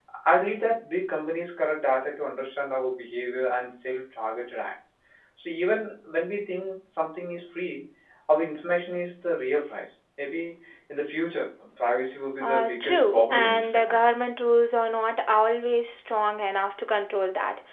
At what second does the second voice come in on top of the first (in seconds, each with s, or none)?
12.4 s